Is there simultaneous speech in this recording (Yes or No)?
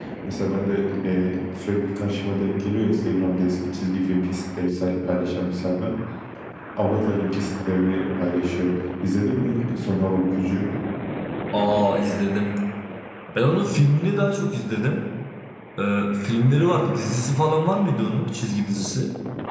No